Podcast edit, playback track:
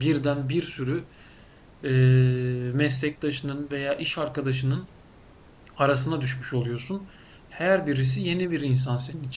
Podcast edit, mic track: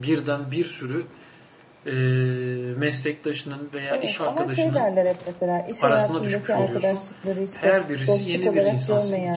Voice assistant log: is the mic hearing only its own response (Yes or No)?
No